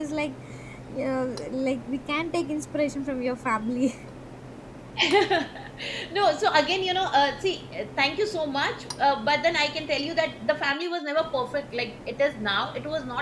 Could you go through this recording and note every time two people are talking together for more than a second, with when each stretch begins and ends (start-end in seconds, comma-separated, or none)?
none